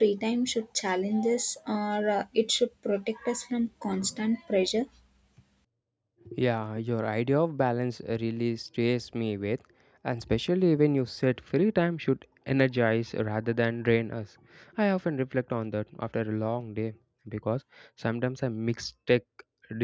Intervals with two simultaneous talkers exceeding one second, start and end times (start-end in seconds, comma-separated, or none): none